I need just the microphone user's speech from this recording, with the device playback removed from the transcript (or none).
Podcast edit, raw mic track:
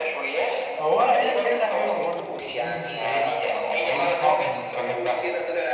هو ورق عنب فكره حلوه برضو في جنب المشويات يعني بيدي طعم المشويات وكده